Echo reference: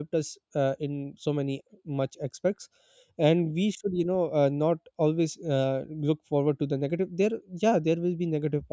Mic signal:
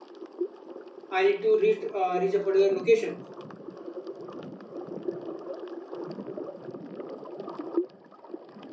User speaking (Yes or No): Yes